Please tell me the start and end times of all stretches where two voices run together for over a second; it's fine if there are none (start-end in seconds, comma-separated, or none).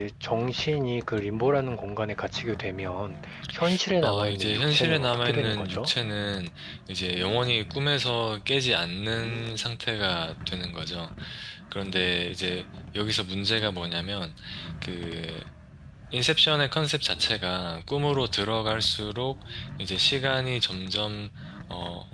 4.0-5.9